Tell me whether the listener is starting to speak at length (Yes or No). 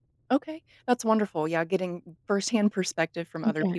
No